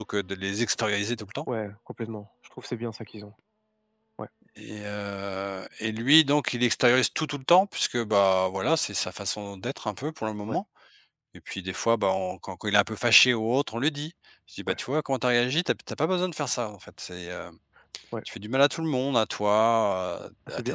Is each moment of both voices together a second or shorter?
Yes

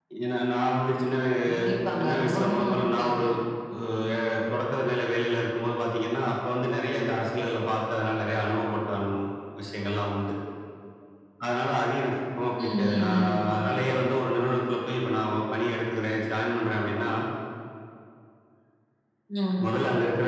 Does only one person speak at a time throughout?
No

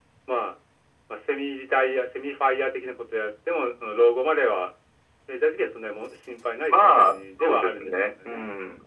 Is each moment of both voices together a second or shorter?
No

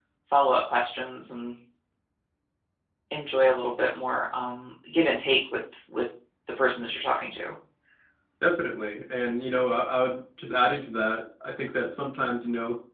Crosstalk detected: No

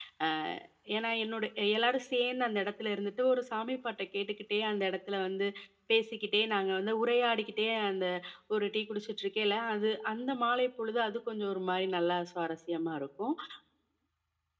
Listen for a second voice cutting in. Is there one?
No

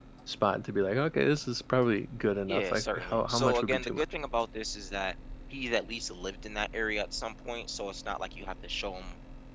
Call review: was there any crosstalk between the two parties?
Yes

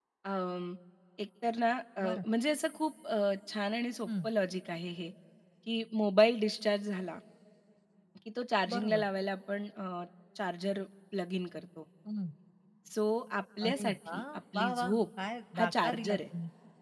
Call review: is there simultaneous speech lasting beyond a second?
Yes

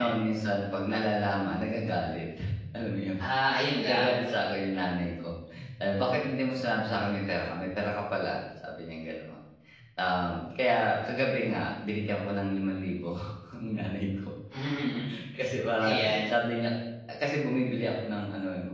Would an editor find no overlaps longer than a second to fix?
Yes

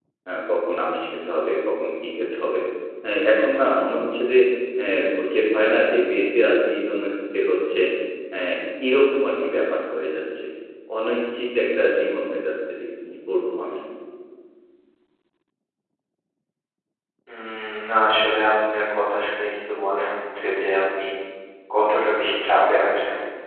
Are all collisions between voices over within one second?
Yes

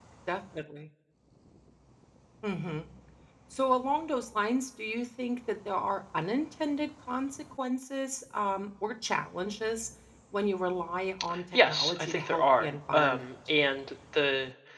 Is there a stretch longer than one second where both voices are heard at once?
Yes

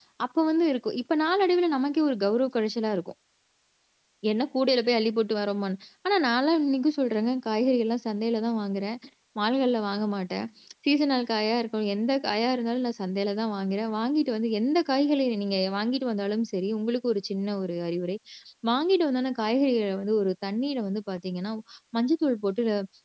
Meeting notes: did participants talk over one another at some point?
No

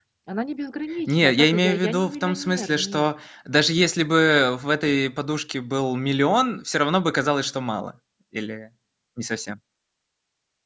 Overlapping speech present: Yes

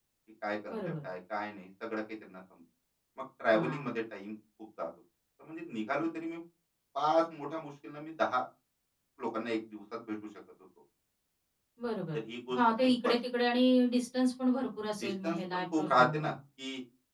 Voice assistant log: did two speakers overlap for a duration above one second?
Yes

